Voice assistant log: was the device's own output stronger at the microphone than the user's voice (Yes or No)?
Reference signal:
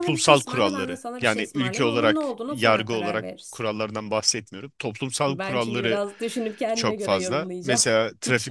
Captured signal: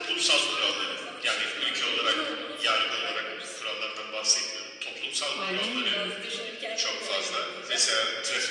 Yes